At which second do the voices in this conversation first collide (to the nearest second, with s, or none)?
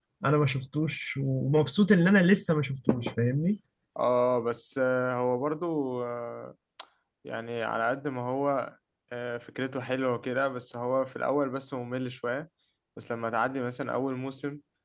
none